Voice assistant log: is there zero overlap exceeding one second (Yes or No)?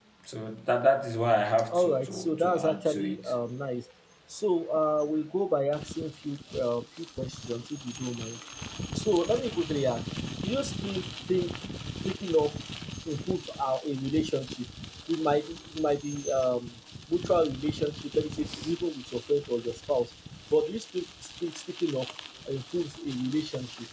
No